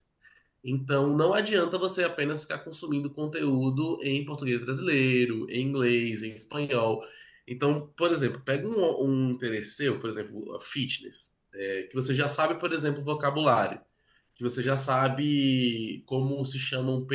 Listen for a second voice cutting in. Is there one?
No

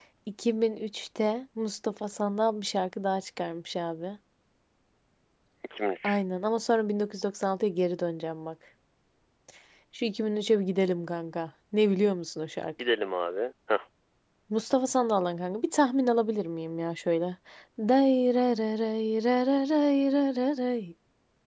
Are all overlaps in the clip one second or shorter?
Yes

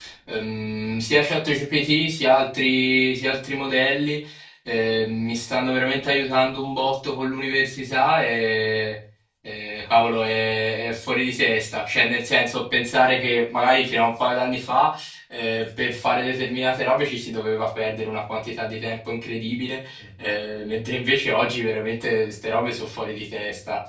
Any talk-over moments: No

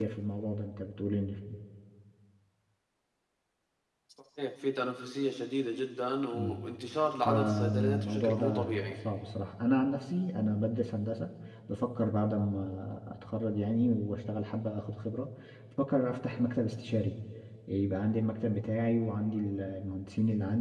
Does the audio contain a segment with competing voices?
Yes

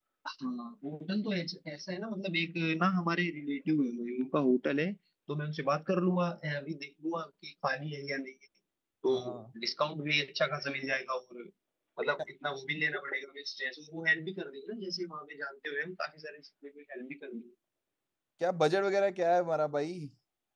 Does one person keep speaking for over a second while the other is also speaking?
No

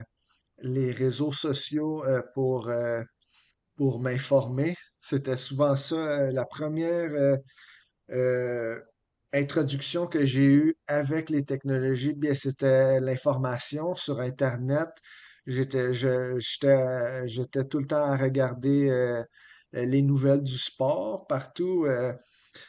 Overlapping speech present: No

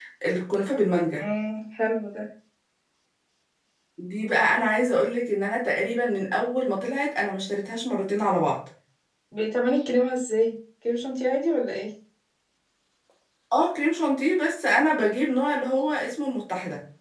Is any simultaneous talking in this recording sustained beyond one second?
No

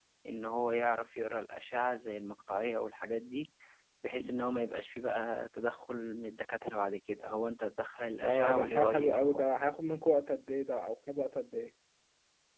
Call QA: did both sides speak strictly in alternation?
No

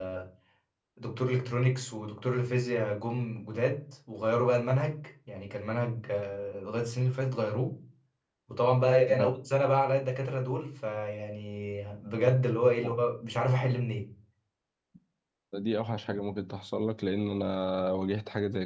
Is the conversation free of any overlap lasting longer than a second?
Yes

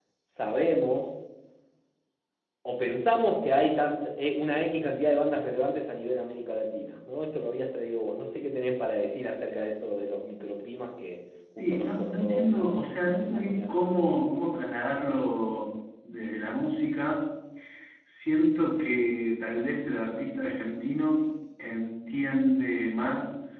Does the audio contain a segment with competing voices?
Yes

